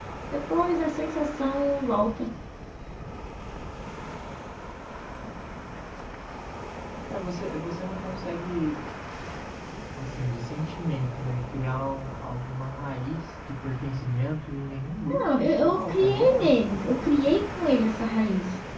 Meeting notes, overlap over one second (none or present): present